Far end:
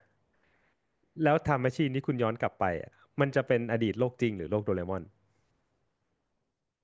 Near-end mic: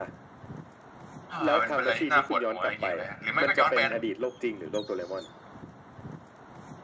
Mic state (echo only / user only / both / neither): both